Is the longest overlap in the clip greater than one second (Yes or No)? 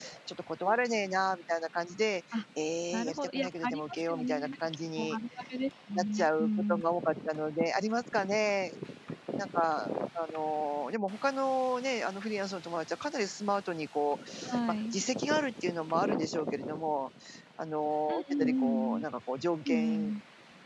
Yes